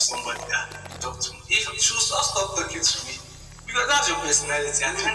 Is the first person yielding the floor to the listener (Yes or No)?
No